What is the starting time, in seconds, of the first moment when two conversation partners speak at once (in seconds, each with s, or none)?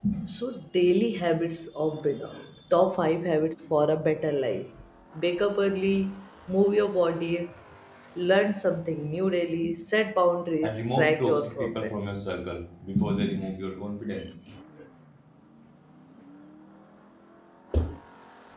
10.6 s